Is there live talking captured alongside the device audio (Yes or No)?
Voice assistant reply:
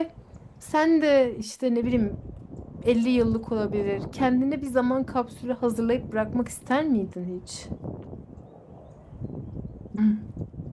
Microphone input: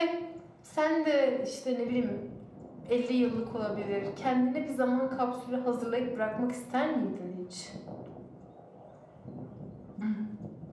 No